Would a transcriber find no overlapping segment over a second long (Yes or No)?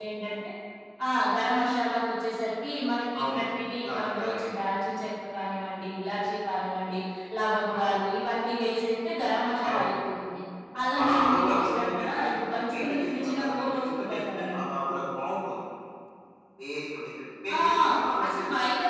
No